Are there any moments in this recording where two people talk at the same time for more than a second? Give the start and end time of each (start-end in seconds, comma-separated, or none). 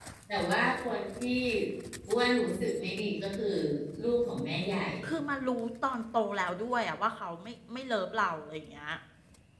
none